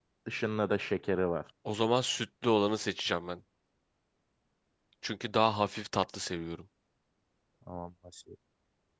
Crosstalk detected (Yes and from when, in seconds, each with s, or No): No